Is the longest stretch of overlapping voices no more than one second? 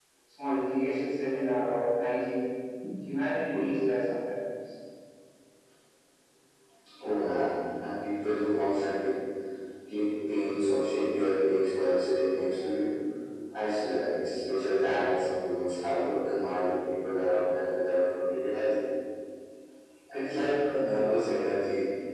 Yes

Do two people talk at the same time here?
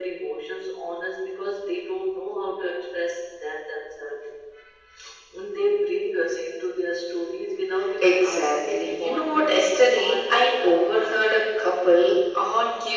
Yes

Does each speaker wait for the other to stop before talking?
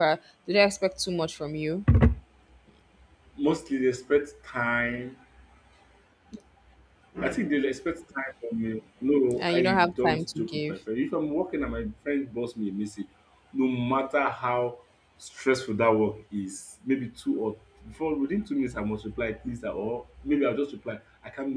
No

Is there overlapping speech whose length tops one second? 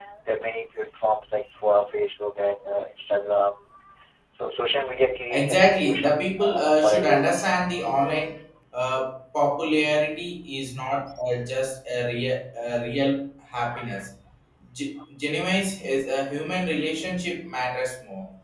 Yes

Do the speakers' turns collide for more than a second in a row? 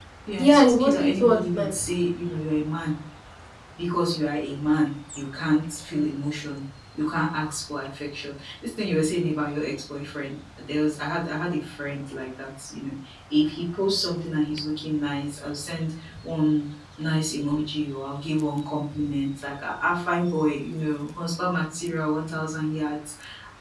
Yes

